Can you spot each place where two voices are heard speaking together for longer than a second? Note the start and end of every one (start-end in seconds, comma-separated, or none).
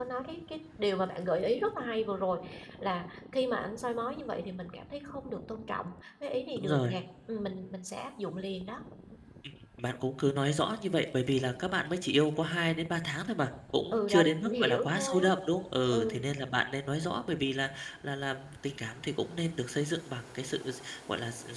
13.9-15.2